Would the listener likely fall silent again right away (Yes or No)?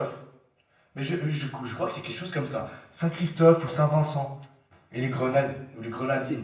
No